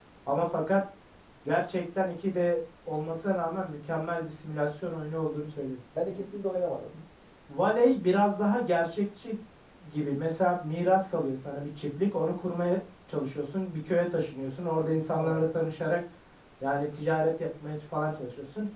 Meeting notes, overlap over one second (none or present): none